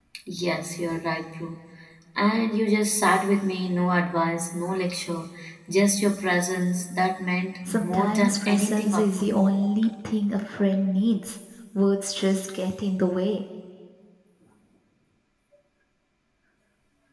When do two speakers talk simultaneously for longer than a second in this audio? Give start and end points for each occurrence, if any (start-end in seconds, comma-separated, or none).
7.7-9.4